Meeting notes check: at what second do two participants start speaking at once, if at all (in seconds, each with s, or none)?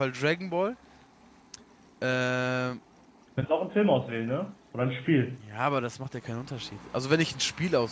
none